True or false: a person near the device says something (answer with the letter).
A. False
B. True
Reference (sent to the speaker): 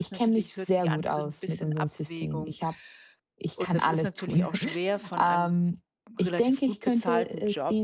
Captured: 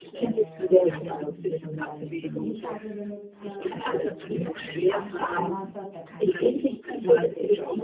B